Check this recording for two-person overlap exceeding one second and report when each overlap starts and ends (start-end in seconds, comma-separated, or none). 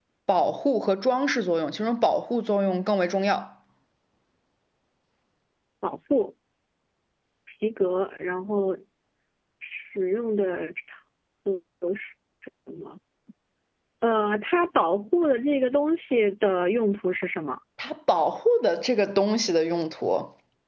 none